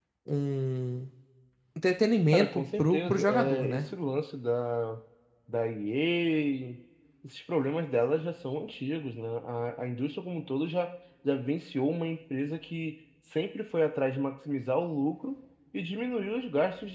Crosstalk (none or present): present